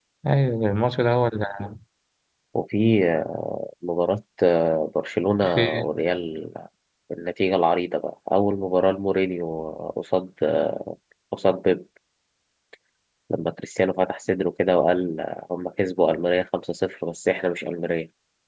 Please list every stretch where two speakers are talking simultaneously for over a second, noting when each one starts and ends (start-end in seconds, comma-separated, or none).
none